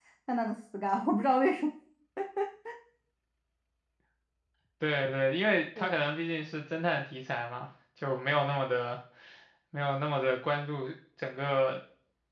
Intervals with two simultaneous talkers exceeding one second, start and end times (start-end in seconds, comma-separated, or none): none